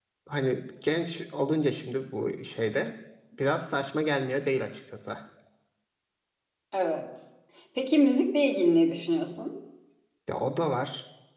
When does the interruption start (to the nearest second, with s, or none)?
none